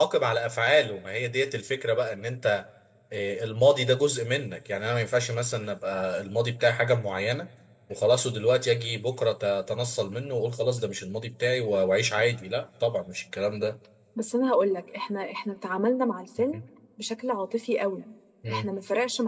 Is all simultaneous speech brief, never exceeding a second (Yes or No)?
Yes